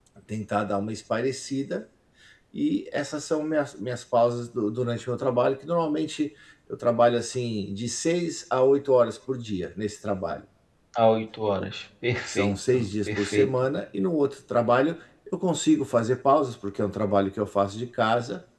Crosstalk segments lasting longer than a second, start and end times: 12.3-13.5

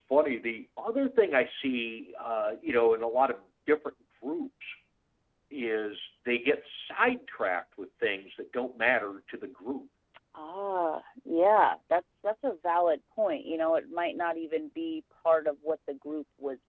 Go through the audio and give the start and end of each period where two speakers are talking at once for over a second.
none

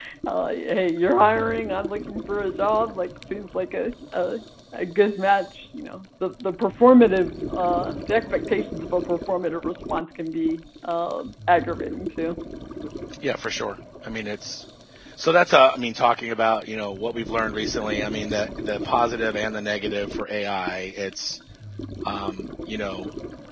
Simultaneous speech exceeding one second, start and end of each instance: none

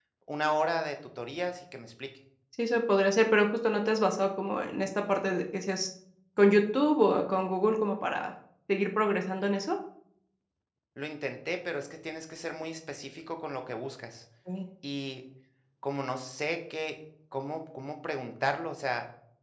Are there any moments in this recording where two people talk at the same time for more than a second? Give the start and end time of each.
none

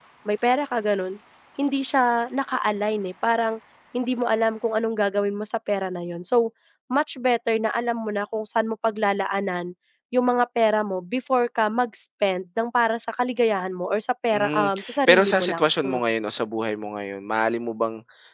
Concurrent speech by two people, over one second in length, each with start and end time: 14.3-16.0

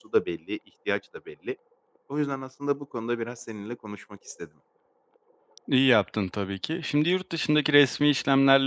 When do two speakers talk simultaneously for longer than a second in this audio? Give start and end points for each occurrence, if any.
none

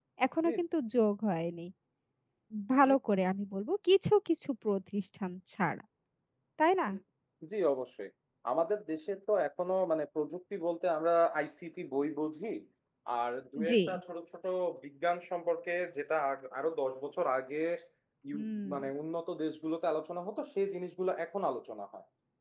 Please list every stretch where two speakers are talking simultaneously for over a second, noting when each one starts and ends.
none

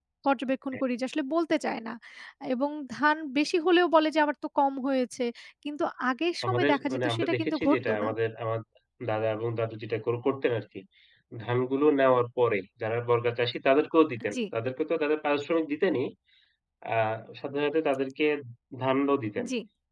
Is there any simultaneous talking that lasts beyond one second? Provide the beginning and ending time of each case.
6.5-8.1

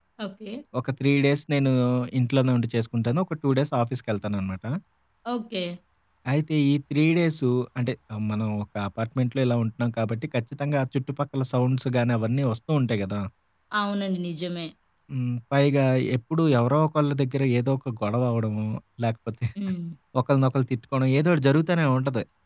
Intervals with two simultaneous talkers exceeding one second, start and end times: none

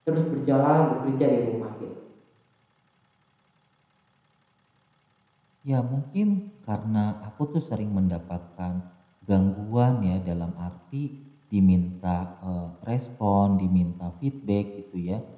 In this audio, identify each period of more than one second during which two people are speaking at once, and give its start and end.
none

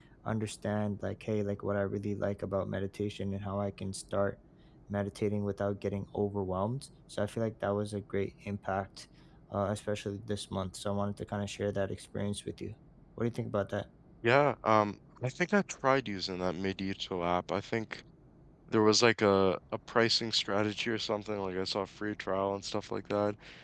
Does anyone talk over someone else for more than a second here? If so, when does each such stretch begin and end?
none

